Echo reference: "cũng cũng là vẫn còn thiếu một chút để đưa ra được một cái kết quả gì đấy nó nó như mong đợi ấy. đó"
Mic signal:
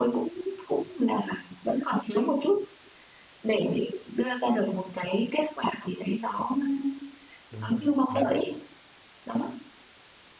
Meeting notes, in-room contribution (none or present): present